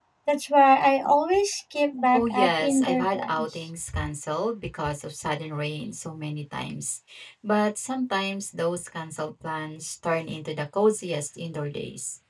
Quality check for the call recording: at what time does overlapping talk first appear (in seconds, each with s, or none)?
2.1 s